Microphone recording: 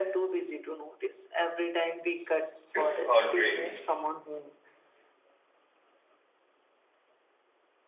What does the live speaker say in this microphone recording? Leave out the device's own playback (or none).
It's heartbreaking